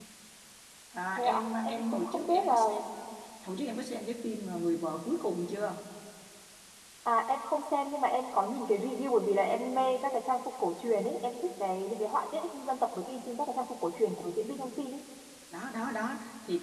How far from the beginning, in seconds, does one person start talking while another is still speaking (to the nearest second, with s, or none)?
1 s